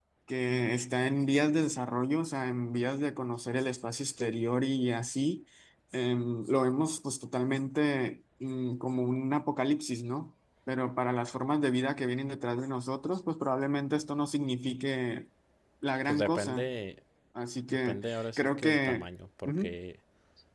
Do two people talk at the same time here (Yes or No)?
Yes